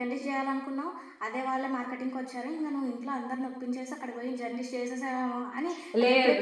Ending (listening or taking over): listening